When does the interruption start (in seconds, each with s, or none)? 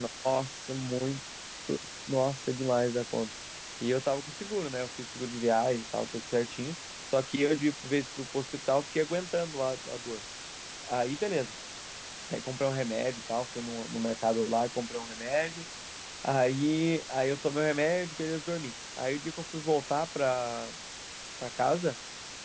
none